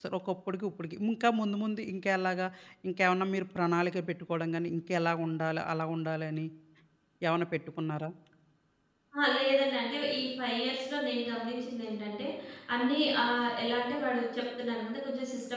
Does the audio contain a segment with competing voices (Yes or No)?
No